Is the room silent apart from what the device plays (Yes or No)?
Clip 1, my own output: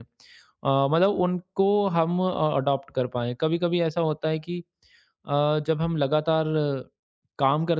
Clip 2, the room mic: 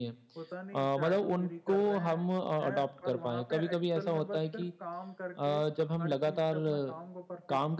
No